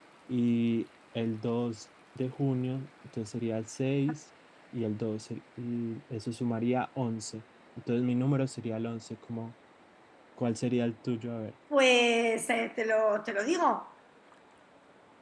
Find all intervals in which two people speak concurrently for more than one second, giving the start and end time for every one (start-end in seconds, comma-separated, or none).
none